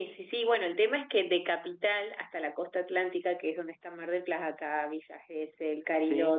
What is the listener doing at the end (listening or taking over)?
listening